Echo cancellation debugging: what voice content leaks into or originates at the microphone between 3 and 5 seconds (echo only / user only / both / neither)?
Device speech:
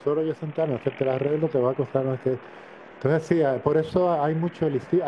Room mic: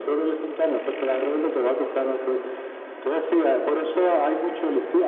echo only